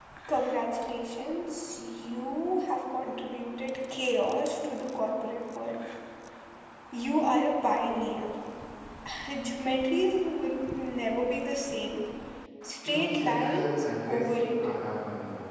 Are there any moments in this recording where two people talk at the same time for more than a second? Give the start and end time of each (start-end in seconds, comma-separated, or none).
12.8-14.8